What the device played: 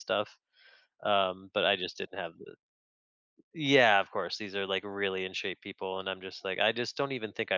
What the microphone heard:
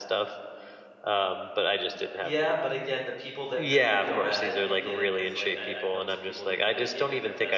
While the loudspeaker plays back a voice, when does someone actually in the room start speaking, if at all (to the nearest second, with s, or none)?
2 s